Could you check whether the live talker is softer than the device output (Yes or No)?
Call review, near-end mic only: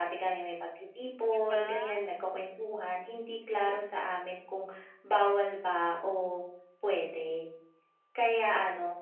Yes